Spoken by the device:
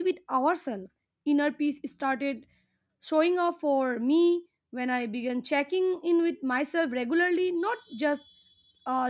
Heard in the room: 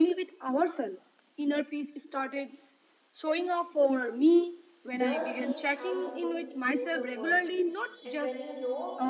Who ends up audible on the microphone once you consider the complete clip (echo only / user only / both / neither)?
both